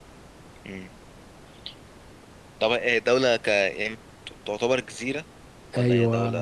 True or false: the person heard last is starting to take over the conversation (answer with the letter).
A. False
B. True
B